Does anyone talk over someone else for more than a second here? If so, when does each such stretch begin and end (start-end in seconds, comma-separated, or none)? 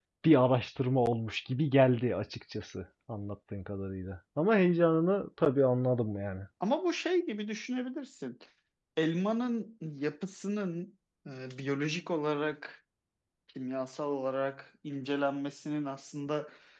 none